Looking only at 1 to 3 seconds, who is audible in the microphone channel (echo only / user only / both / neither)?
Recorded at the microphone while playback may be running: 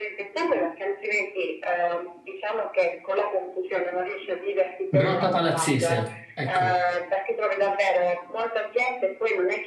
echo only